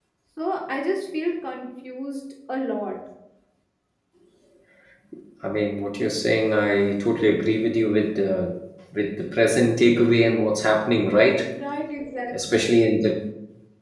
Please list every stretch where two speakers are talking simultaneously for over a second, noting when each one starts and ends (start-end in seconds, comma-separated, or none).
none